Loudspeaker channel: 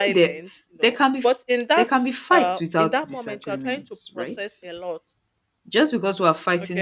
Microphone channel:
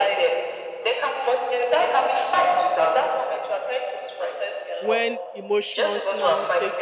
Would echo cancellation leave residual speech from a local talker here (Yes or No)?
Yes